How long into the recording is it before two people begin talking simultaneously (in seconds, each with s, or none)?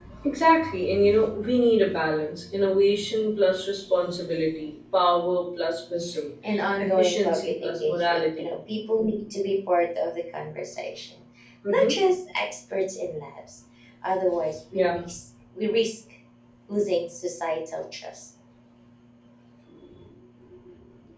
6.8 s